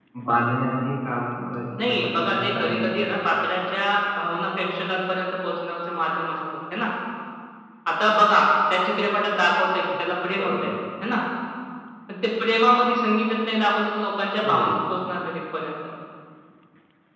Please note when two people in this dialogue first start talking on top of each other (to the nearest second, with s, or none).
2 s